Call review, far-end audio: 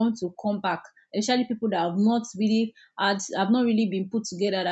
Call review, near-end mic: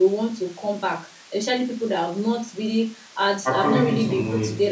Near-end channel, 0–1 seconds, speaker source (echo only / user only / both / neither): echo only